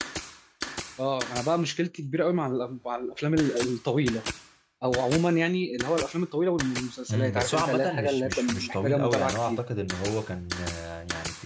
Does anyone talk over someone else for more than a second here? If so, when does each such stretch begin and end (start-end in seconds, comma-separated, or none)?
7.1-9.6